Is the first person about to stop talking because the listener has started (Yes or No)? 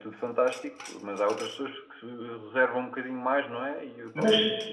Yes